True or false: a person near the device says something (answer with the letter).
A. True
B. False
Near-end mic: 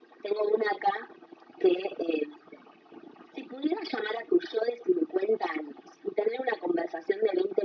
B